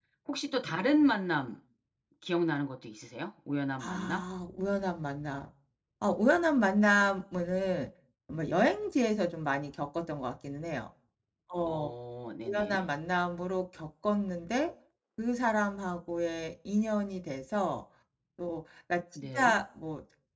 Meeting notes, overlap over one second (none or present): none